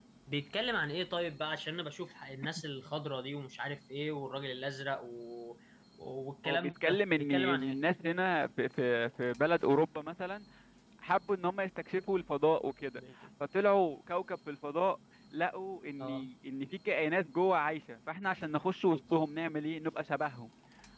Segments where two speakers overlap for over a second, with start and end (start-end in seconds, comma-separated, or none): 6.5-7.8